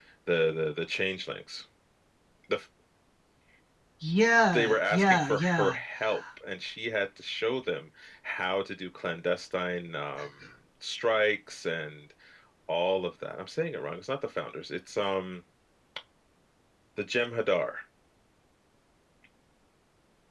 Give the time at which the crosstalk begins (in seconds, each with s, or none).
4.5 s